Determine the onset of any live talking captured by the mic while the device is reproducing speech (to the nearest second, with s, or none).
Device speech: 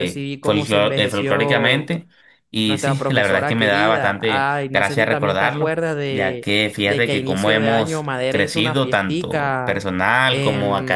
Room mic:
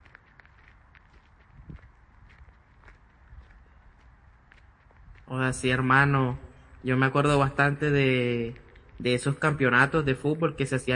5 s